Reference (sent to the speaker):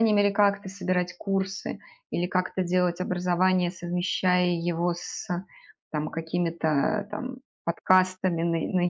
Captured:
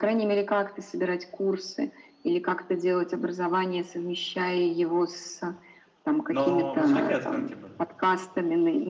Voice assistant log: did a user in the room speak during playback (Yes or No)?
Yes